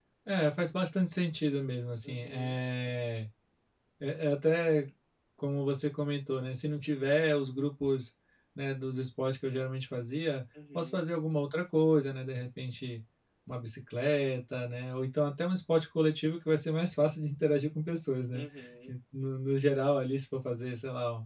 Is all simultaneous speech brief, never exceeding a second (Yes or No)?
Yes